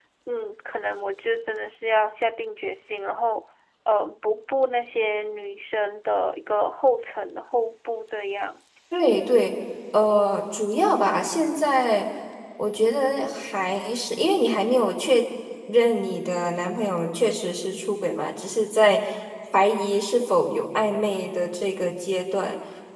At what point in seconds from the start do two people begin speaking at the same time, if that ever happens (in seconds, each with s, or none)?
none